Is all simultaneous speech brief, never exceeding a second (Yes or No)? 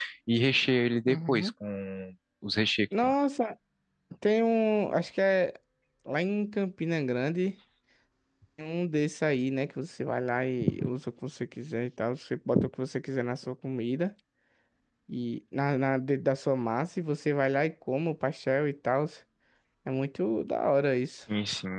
Yes